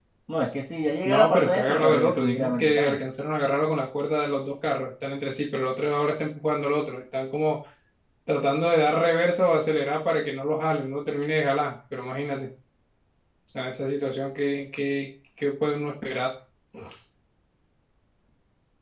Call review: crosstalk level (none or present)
present